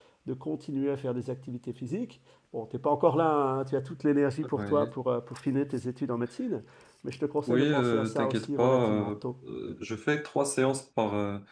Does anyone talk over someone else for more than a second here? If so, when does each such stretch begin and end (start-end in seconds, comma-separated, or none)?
7.5-9.1